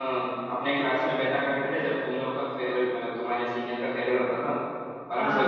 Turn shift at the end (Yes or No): No